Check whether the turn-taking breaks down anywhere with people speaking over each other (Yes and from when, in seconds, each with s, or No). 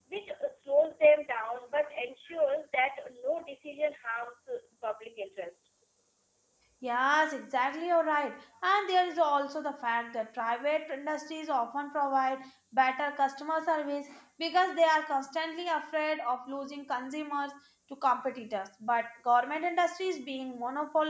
No